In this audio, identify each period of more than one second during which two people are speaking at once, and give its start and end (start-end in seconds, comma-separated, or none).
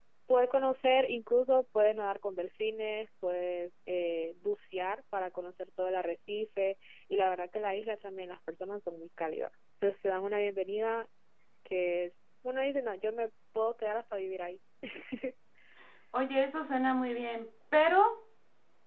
none